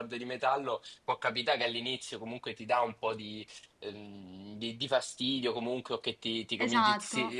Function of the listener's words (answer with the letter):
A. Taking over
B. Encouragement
B